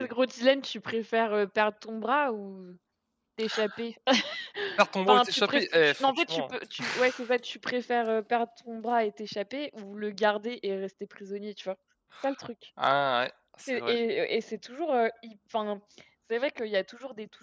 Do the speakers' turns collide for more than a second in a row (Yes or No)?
Yes